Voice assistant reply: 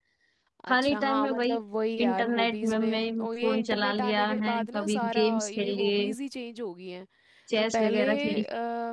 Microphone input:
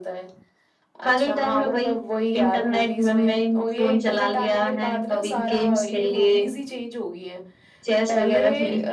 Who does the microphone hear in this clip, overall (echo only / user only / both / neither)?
echo only